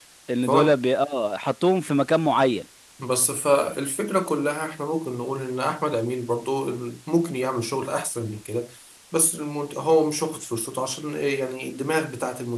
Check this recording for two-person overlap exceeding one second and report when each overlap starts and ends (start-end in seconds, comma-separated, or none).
none